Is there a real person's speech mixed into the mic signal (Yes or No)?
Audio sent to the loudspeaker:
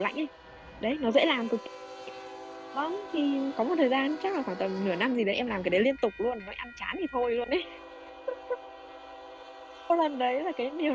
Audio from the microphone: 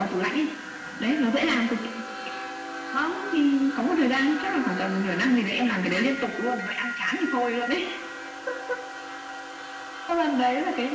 No